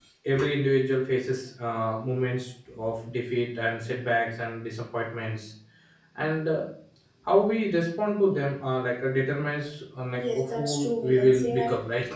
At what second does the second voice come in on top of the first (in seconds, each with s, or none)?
10.1 s